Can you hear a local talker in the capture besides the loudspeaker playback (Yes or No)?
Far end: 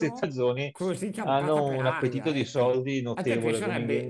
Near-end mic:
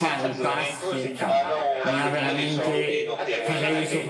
Yes